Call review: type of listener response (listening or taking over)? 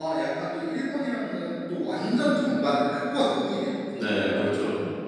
taking over